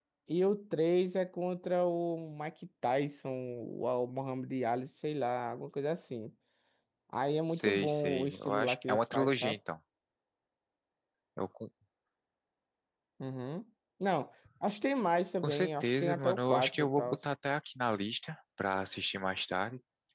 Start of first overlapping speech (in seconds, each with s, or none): 7.5 s